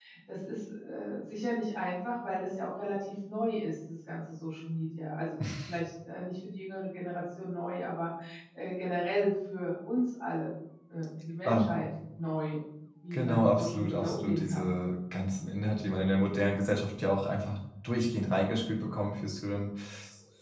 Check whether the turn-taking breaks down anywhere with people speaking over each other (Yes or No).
Yes